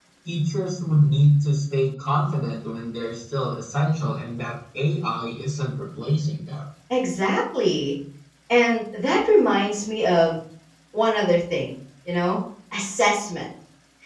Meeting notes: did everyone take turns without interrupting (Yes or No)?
Yes